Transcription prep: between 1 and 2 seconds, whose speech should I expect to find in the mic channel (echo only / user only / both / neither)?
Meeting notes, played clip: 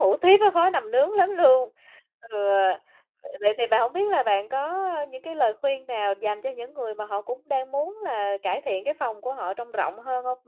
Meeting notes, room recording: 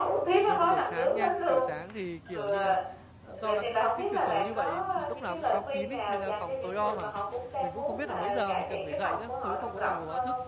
both